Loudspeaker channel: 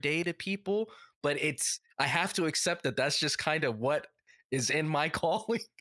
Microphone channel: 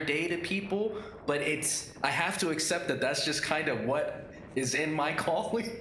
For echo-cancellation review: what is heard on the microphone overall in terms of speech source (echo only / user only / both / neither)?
echo only